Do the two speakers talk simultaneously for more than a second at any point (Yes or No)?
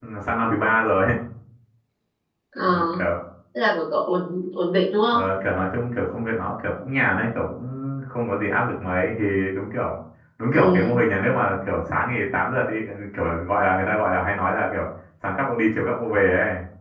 No